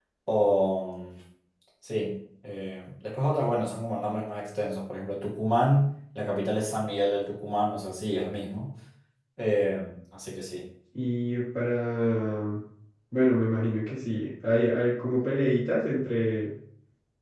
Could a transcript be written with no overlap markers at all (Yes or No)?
Yes